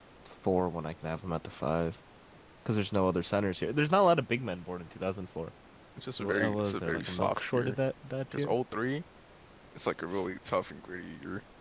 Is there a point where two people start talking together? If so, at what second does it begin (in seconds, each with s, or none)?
6.2 s